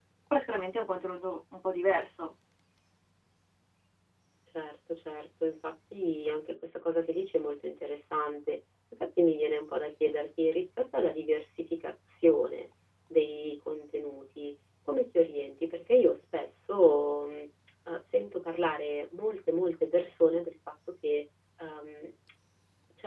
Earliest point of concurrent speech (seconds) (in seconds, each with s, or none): none